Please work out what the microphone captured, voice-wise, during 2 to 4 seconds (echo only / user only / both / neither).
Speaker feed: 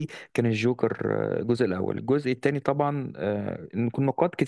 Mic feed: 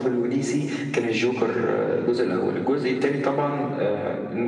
echo only